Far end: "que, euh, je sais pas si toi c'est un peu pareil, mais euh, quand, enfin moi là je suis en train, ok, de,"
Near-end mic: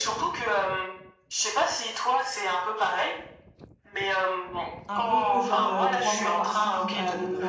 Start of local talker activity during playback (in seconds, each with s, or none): 4.9 s